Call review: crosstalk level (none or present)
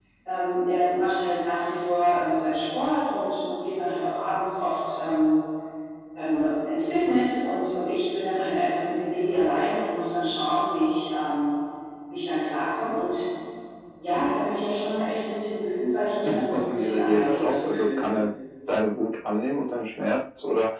present